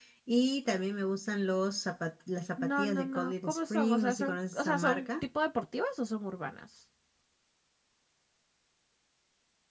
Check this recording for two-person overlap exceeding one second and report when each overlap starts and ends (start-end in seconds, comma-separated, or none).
2.6-5.1